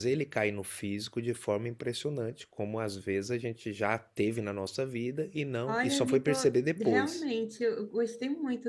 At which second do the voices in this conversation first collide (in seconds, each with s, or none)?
5.7 s